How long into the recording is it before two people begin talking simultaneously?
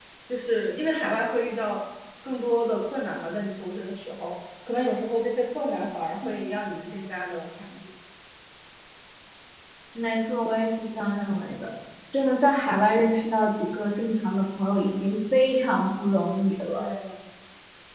none

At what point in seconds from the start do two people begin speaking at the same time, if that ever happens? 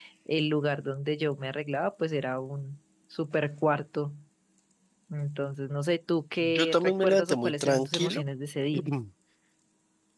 6.4 s

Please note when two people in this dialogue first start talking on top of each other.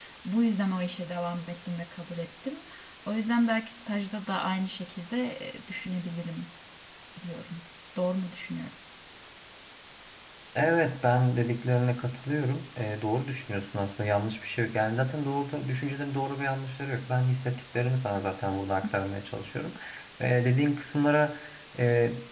none

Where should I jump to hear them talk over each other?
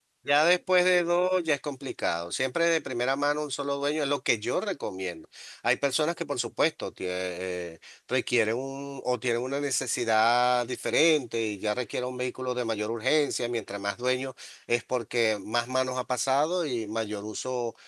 none

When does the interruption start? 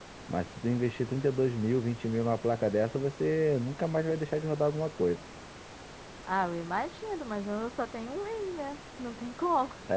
none

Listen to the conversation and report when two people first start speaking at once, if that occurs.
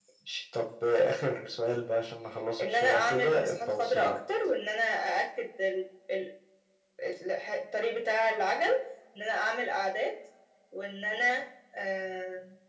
2.6 s

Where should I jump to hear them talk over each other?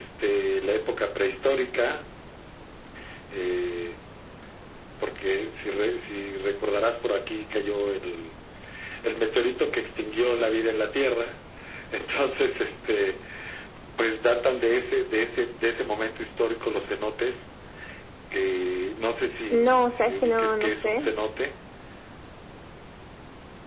19.5 s

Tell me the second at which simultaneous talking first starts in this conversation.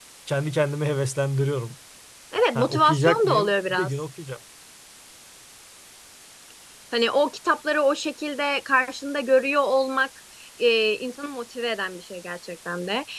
2.5 s

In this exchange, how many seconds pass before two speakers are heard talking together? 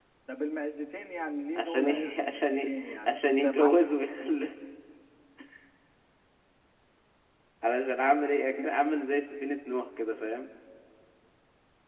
1.6 s

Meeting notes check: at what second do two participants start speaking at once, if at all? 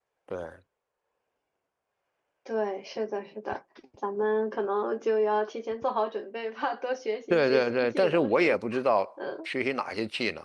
7.3 s

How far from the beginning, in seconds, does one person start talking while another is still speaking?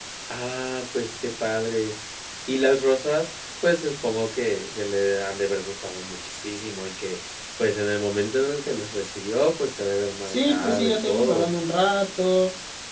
10.3 s

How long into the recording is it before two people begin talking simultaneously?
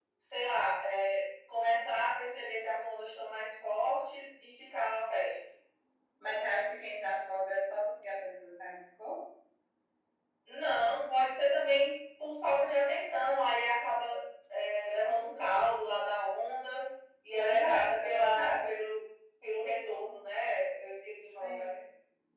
17.4 s

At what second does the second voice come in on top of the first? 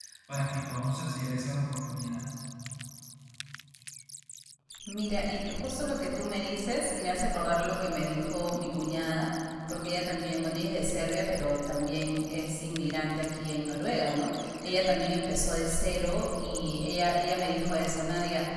none

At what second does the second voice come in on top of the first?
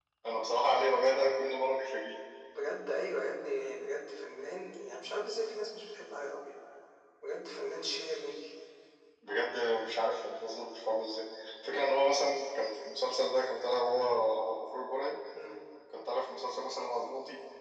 none

